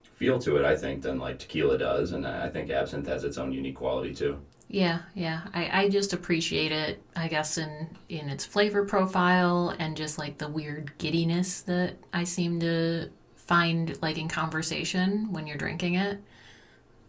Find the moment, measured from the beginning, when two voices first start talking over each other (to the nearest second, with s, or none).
none